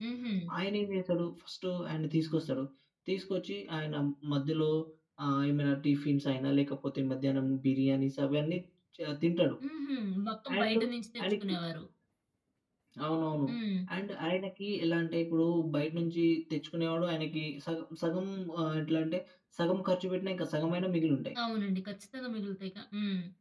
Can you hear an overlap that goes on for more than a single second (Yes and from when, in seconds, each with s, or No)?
No